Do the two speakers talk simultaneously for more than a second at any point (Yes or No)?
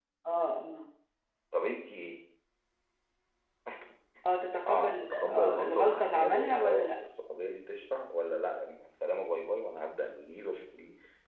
Yes